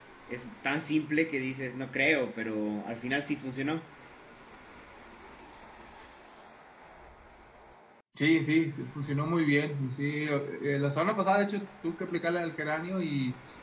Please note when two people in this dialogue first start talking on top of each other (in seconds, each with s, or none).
none